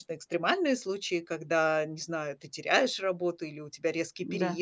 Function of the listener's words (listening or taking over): listening